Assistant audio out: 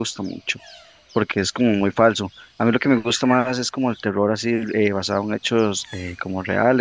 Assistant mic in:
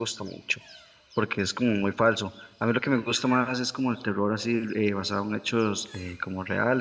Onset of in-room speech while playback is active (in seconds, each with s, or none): none